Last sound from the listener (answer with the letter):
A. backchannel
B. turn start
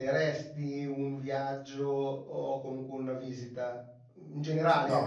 A